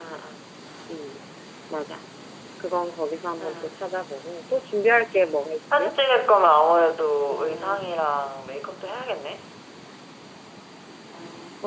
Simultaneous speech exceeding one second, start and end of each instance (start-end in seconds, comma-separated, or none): none